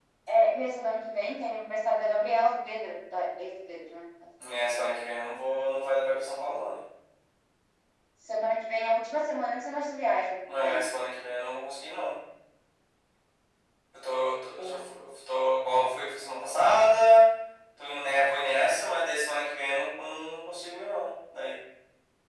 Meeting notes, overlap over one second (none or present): none